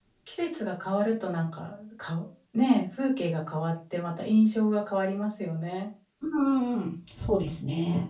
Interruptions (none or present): none